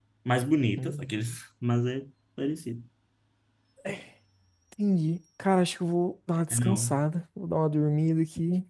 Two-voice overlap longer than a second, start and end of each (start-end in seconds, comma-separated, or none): none